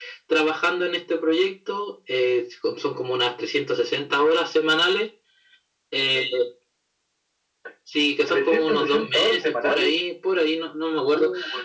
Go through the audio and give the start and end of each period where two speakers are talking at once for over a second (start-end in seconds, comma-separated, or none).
8.3-9.9